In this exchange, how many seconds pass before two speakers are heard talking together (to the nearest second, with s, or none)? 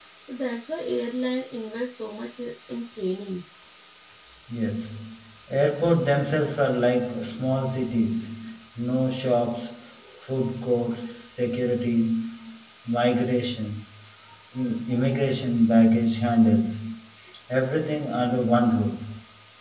none